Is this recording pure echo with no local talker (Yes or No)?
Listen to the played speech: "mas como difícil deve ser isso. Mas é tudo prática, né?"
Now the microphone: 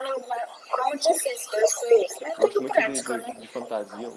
No